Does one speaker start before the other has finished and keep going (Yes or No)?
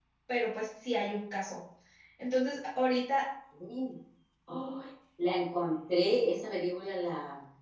No